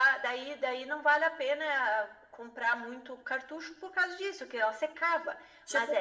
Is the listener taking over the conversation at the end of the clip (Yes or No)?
Yes